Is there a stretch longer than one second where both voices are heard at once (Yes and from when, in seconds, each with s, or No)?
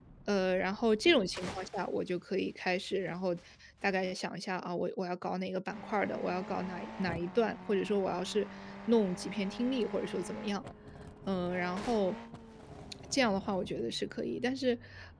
No